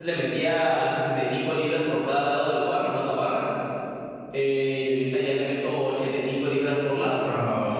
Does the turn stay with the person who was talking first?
No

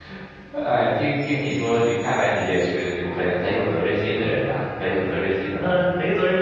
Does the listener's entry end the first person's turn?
Yes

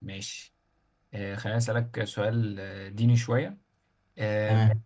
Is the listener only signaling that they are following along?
Yes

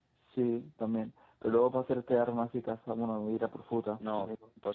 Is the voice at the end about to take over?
Yes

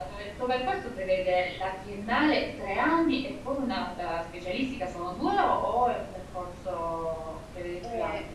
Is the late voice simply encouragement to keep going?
No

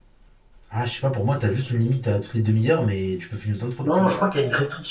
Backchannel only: No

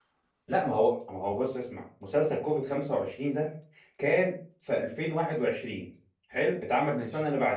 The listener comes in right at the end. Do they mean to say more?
No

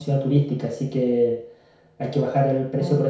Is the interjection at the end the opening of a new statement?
No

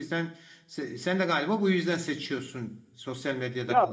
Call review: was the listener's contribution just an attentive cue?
No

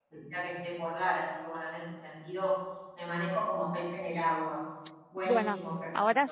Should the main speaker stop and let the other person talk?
Yes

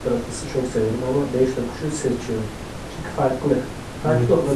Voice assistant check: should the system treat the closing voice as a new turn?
Yes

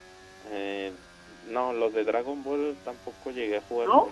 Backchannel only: No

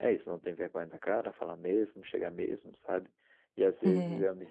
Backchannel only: Yes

